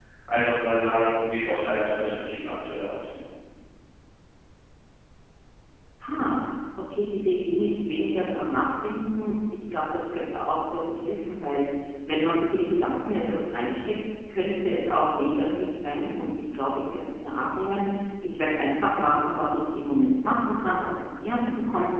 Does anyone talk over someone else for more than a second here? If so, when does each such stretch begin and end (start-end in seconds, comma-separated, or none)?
none